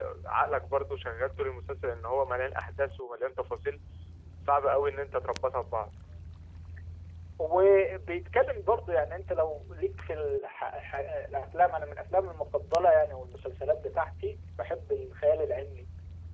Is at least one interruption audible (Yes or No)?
No